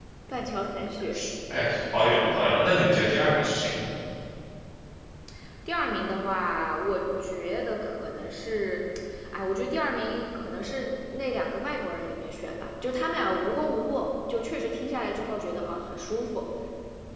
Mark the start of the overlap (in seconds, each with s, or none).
none